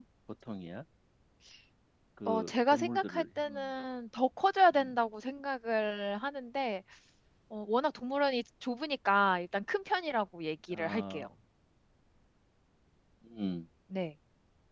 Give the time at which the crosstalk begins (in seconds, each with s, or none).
2.3 s